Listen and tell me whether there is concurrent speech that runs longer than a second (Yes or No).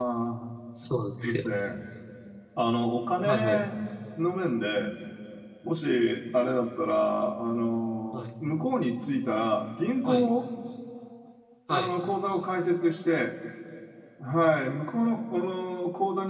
No